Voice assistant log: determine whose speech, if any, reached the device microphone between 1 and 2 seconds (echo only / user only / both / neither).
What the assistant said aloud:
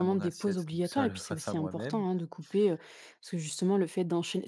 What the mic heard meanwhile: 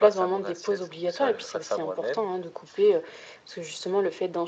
echo only